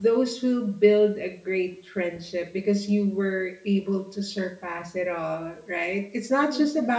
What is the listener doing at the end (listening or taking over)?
listening